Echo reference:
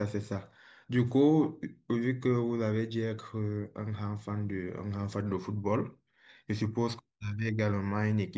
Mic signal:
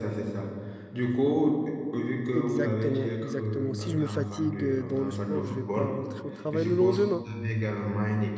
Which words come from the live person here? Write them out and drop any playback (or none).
exactement, exactement. Si je me fatigue euh, dans le sport, je vais pas rentrer au travail le lendemain.